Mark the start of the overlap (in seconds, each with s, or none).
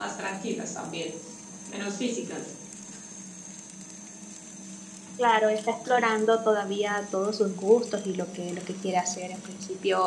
none